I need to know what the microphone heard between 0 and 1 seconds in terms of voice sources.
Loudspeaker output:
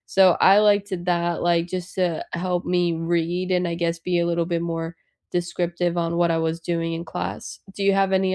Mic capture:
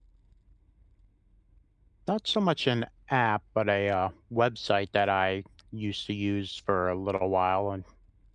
neither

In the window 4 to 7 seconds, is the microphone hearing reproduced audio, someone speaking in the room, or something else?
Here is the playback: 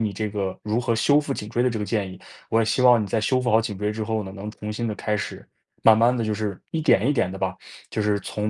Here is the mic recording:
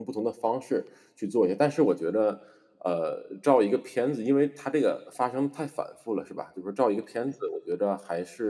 user only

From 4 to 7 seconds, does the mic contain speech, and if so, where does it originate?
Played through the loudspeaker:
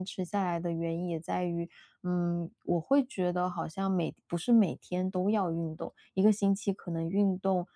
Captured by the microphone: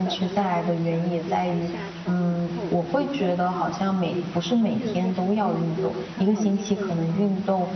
both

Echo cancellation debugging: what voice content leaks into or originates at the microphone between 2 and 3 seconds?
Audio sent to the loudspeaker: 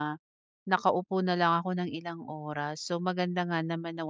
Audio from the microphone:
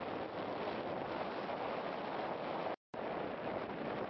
neither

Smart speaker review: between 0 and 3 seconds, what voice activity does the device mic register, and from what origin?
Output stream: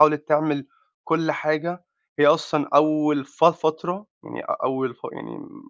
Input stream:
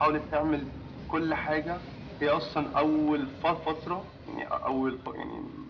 echo only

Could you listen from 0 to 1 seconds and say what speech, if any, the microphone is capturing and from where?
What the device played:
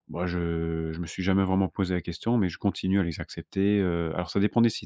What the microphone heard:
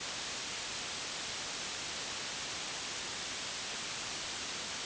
neither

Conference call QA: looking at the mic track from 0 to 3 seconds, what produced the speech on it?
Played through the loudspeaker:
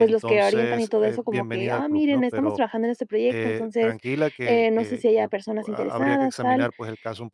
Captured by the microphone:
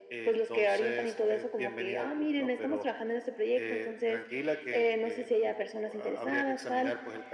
echo only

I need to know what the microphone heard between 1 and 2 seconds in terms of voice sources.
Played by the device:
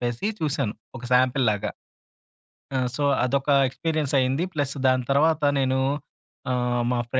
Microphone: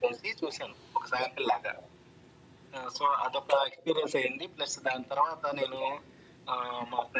echo only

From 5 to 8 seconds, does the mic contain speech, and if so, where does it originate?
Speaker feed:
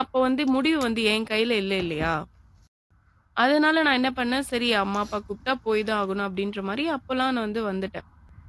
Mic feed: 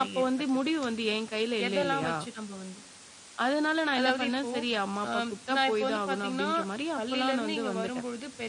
both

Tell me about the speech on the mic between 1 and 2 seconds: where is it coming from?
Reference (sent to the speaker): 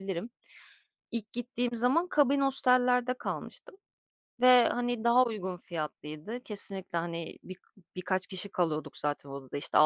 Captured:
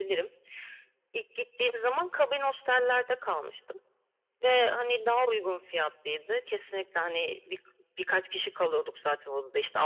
echo only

